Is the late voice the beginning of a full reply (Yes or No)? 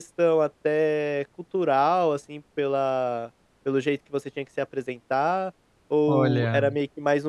No